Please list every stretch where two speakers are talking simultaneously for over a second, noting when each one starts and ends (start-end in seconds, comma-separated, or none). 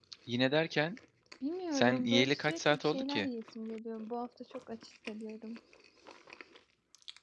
1.7-3.3